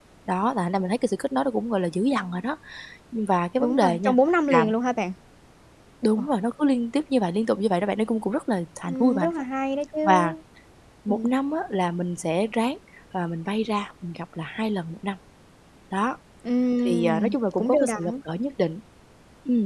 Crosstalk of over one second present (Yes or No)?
Yes